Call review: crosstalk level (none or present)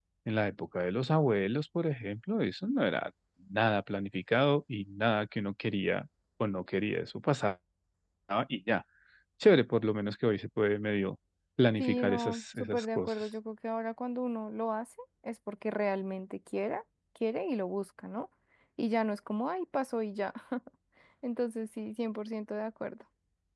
present